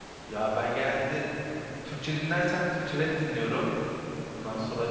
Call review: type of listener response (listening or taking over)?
listening